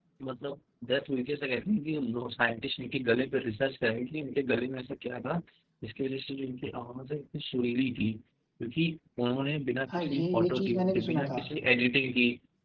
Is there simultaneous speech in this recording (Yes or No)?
Yes